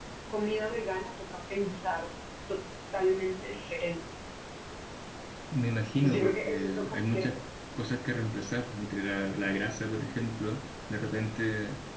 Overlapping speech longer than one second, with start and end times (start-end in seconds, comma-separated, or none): 6.0-7.3